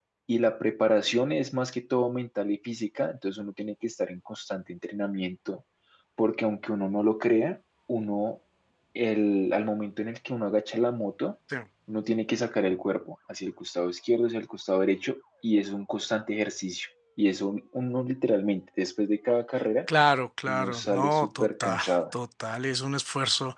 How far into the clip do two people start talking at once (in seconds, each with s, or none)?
20.5 s